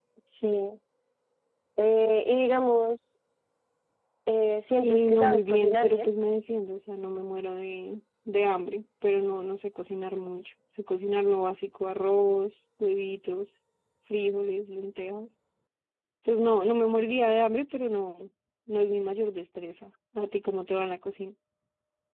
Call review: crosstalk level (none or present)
present